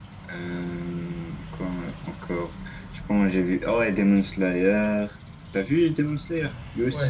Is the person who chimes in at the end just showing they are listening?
No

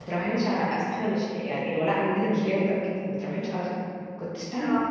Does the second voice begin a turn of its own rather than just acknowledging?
No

